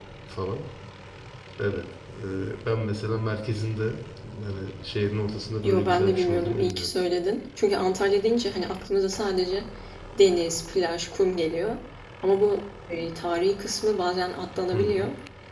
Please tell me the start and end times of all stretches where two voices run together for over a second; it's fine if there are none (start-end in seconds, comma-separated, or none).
5.6-6.9